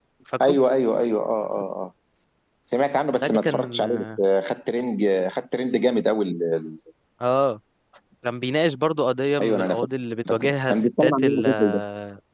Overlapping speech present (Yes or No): Yes